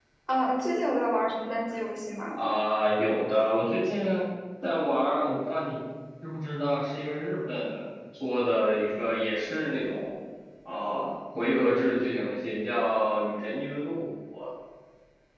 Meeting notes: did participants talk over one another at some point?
No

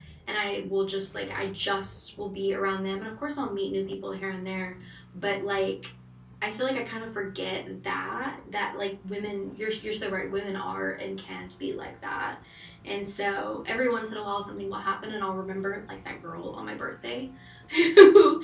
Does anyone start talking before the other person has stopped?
No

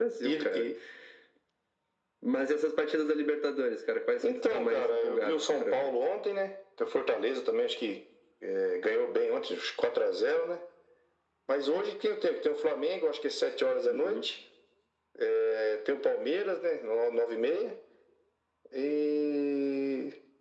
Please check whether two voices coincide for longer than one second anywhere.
Yes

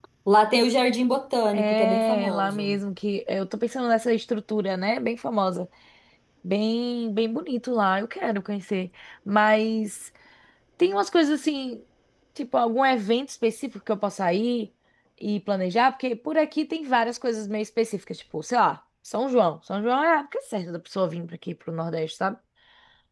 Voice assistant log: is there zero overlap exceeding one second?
No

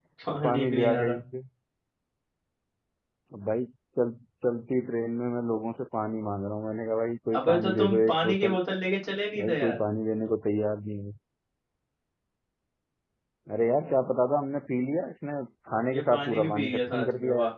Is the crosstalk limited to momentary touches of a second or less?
No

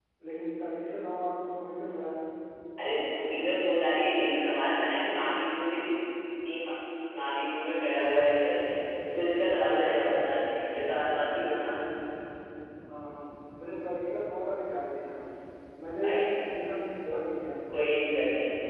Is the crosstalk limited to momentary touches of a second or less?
Yes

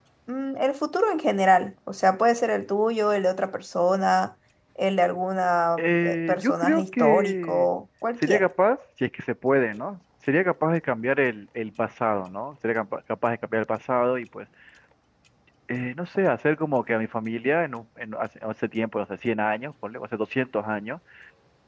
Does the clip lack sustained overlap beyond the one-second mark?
No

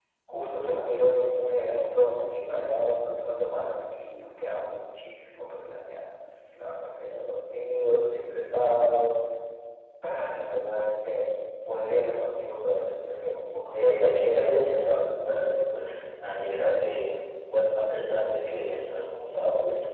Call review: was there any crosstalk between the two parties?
Yes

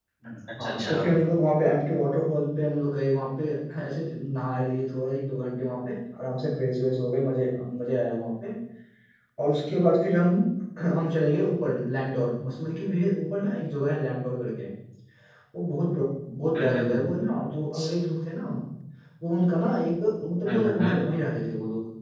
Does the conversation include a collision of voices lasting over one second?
No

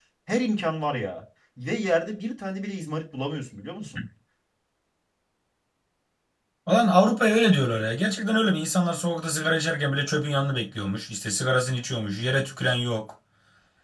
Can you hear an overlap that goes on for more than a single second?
No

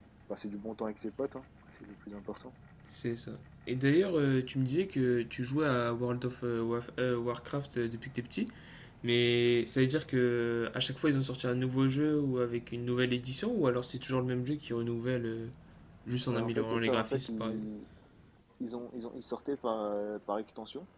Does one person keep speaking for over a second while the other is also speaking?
Yes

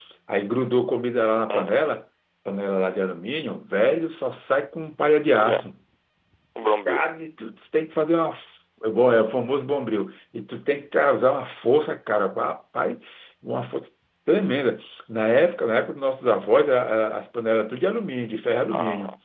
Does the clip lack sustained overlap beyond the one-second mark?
Yes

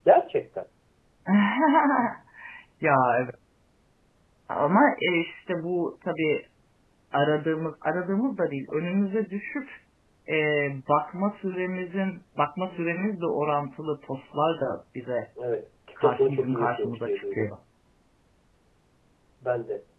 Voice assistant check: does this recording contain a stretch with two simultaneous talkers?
Yes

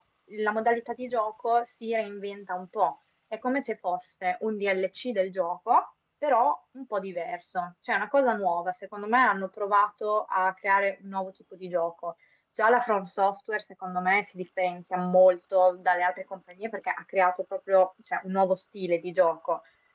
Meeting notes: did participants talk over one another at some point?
No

